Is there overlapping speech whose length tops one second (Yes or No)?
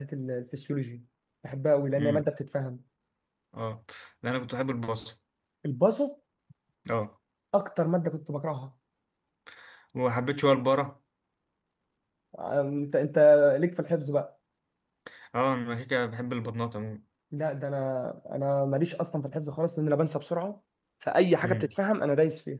No